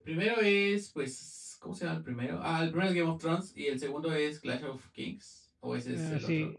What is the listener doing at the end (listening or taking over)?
taking over